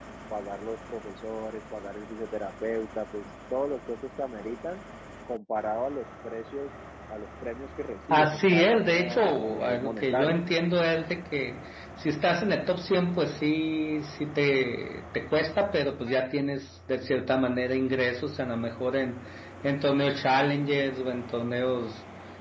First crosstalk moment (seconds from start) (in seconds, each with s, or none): 8.1 s